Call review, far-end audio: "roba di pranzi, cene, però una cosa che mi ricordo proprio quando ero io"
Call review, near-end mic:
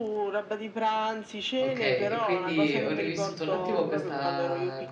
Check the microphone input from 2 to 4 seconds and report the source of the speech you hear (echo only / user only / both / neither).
both